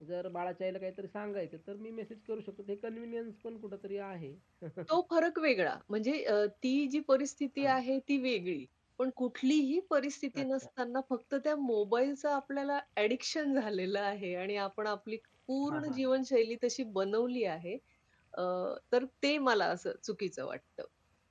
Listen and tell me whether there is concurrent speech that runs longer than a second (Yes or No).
No